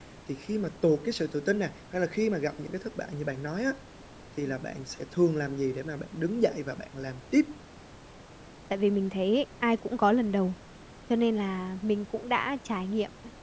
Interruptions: none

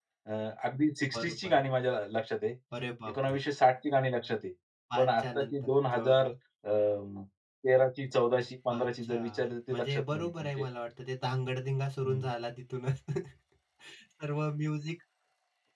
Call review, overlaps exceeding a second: present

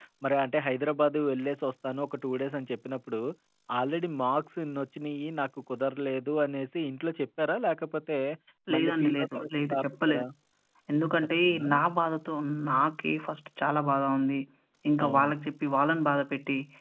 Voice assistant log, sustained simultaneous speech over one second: present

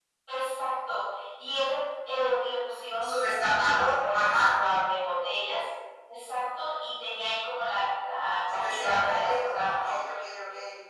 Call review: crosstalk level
present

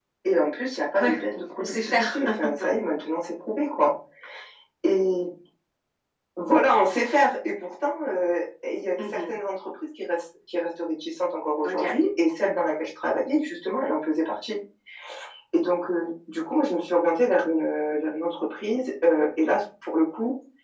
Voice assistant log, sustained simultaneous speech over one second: present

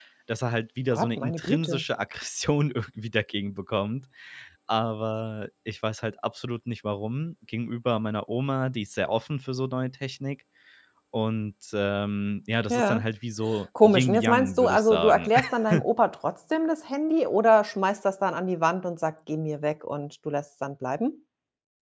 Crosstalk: present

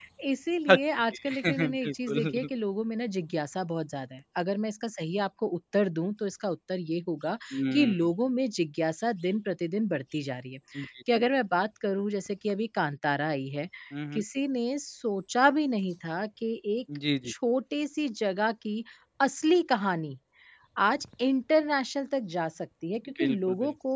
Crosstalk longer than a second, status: present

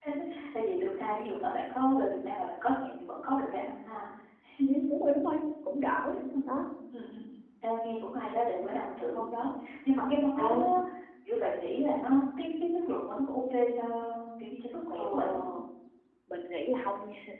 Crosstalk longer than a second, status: none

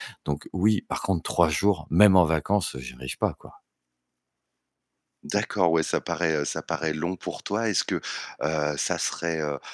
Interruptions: none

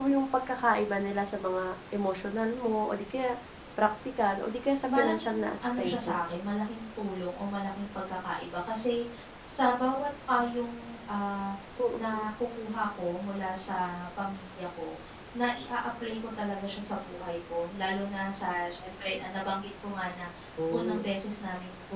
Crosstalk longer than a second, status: present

